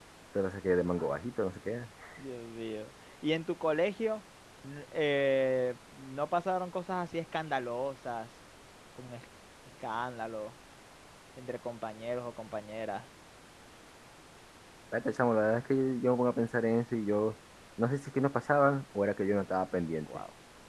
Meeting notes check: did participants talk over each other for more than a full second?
No

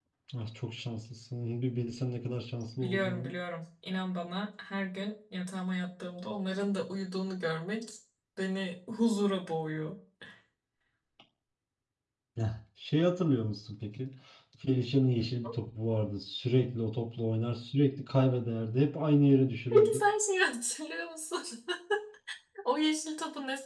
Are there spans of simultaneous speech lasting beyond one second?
No

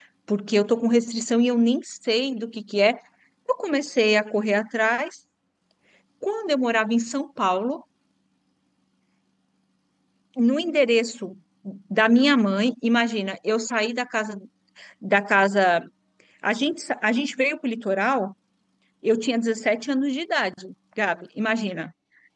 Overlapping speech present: No

